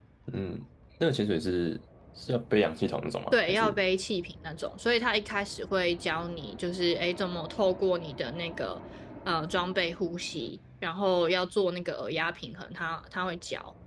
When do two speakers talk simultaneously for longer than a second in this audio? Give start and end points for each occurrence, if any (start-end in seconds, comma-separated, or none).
none